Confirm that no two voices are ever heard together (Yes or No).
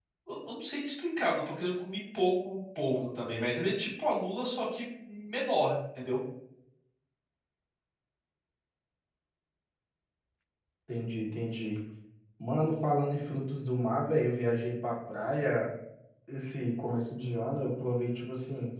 Yes